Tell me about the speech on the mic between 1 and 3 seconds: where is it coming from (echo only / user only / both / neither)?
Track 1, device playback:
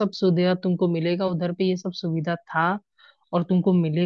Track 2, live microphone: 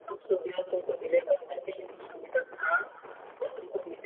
echo only